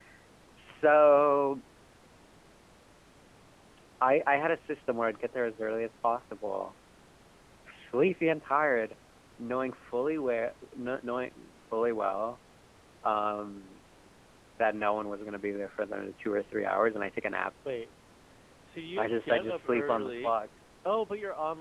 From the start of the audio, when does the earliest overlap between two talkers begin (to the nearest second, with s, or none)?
19 s